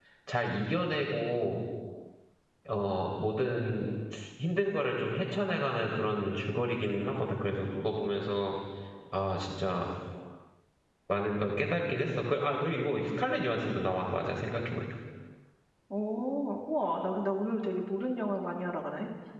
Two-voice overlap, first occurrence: none

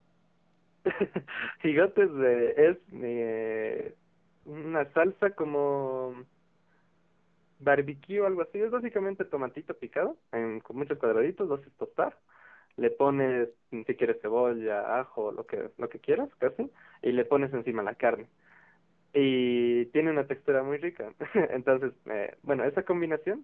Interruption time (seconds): none

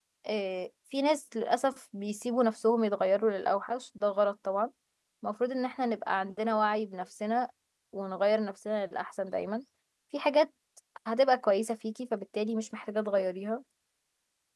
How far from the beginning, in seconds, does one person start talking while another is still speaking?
none

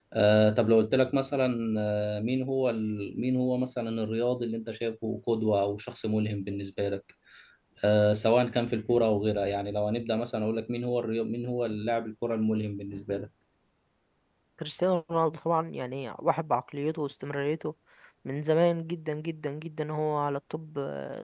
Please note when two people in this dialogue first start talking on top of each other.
none

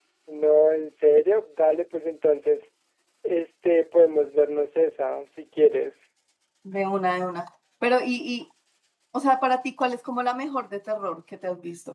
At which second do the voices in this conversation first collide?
none

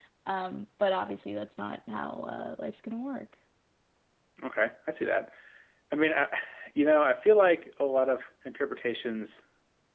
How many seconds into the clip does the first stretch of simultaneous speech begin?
none

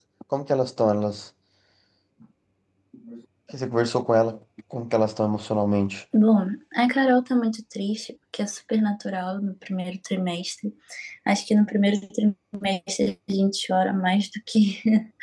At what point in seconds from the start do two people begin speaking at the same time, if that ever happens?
none

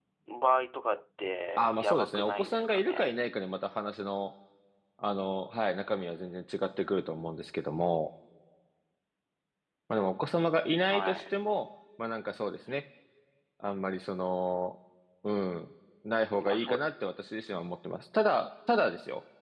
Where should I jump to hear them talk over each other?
1.6 s

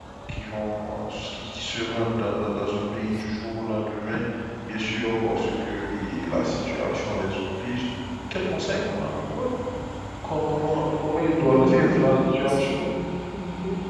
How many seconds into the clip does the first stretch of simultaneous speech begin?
11.4 s

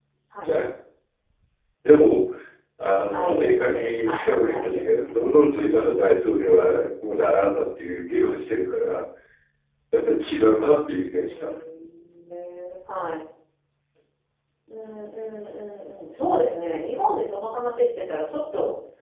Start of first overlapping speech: 3.1 s

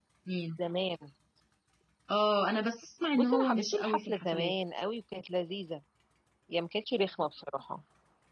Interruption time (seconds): 3.1 s

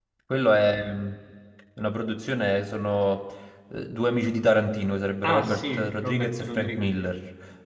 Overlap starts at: 5.2 s

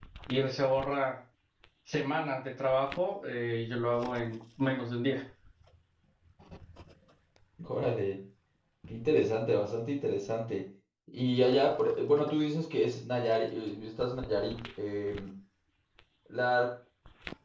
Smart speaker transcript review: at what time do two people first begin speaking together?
none

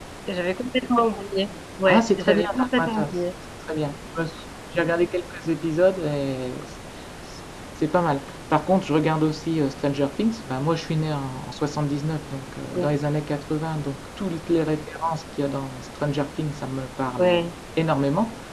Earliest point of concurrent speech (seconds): 1.9 s

